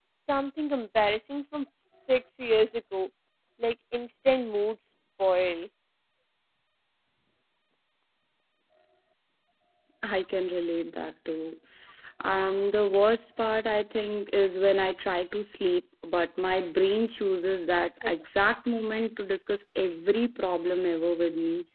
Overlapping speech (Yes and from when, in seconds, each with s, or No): No